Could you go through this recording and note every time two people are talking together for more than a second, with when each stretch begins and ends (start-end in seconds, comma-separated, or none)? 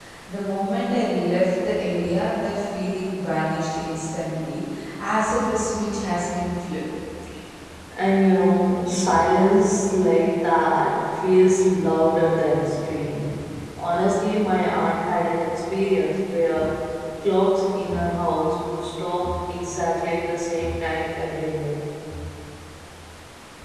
none